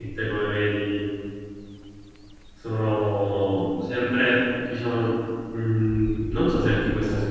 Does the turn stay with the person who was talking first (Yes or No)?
Yes